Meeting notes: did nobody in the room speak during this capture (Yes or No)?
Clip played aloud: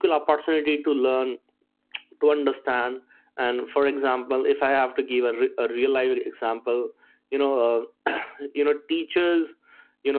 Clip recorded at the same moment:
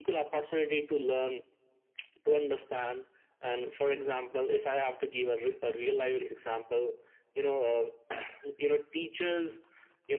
Yes